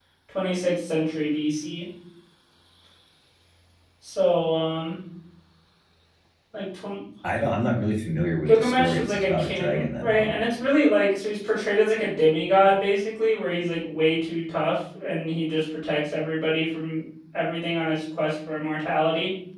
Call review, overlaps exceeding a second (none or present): present